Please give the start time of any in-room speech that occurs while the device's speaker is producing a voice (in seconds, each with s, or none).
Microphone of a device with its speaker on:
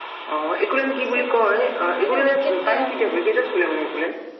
1.1 s